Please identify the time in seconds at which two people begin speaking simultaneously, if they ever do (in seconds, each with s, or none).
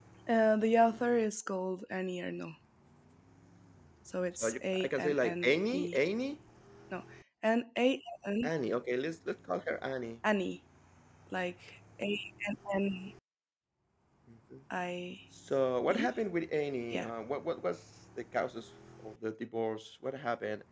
4.4 s